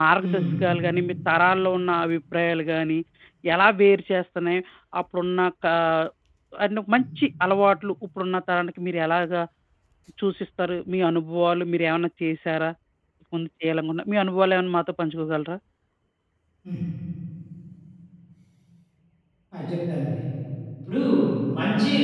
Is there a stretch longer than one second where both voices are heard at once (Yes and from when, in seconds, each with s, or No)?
No